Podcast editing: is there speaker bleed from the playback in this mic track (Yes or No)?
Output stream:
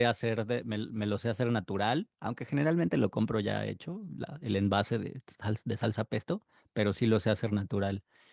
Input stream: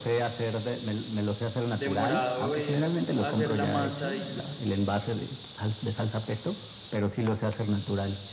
Yes